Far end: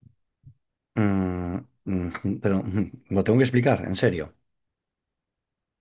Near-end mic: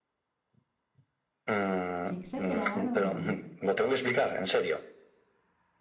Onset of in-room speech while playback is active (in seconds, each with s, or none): 2.0 s